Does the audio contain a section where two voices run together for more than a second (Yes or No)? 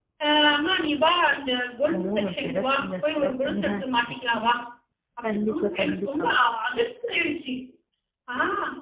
Yes